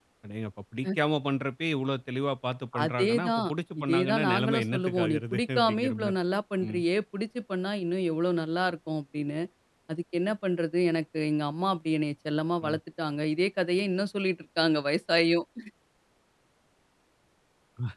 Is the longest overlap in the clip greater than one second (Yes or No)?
Yes